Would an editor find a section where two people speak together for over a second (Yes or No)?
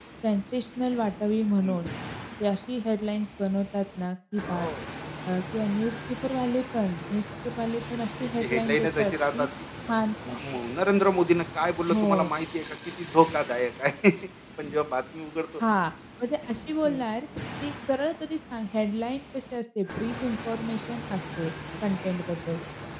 Yes